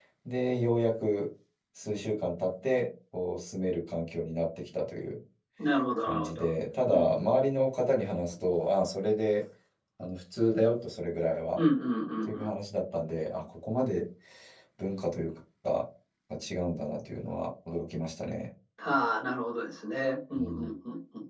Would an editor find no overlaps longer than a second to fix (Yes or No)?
Yes